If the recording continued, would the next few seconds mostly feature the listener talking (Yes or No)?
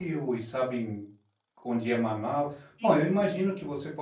No